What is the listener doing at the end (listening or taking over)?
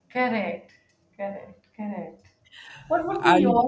listening